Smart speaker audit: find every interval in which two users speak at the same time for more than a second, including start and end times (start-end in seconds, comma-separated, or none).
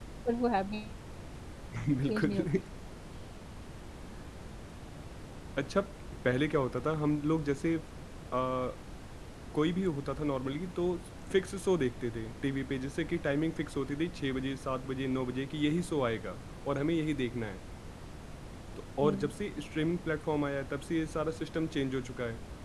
none